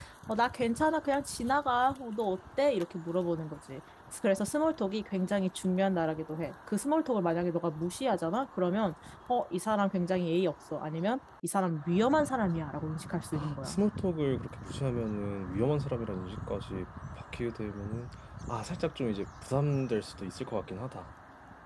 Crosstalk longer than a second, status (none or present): none